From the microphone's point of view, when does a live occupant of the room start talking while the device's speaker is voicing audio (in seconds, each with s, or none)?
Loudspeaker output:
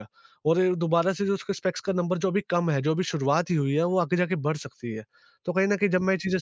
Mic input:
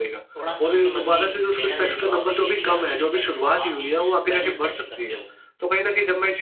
0.3 s